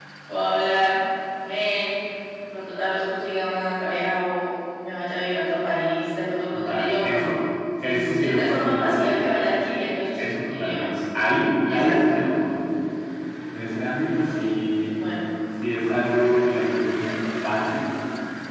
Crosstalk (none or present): present